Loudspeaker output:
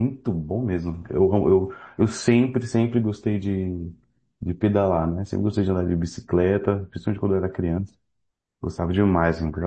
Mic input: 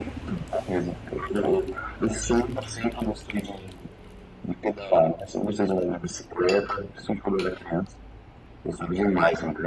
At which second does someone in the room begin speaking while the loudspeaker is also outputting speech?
none

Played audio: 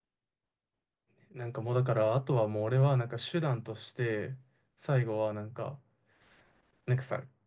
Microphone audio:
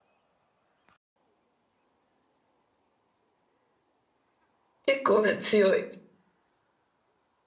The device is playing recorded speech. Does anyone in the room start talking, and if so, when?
4.8 s

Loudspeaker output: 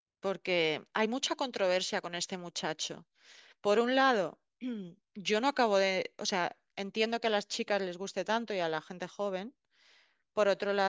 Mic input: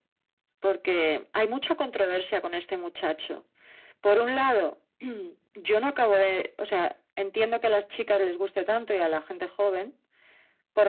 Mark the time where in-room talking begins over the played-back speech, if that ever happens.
none

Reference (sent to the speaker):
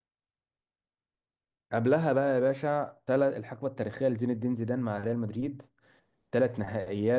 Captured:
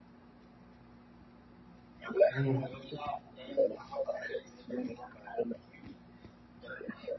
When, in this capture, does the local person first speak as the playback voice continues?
2.3 s

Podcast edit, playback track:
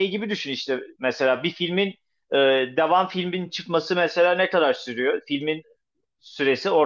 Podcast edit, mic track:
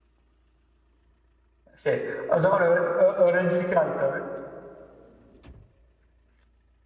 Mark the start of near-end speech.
1.8 s

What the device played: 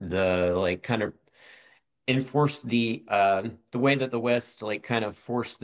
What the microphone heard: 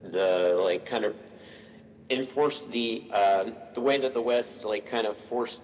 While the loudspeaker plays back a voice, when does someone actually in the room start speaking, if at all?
none

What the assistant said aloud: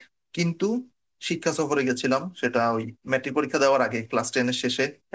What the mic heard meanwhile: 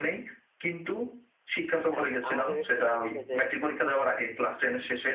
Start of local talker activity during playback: 1.9 s

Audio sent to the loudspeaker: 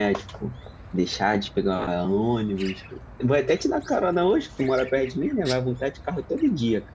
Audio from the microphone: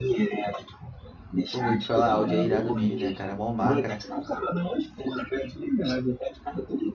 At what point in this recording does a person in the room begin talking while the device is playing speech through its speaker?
1.5 s

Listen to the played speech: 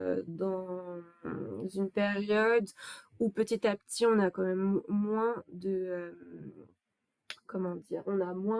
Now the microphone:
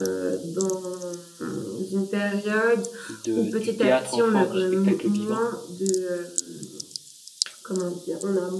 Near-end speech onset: 3.1 s

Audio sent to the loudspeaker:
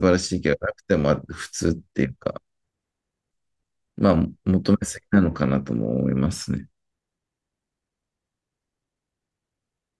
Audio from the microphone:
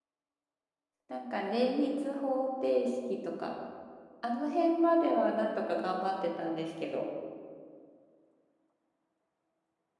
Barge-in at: 1.1 s

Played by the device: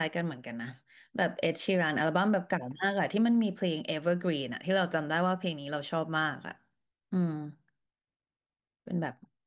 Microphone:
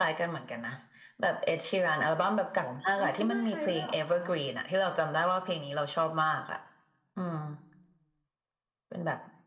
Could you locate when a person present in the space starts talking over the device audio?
3.0 s

